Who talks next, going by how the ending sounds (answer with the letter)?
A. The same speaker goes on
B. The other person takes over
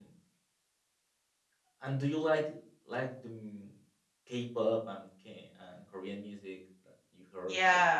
B